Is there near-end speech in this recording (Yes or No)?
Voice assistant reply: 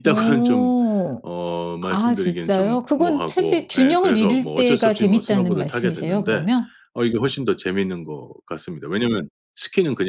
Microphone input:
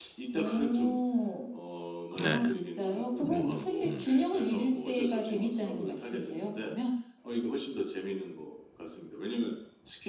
Yes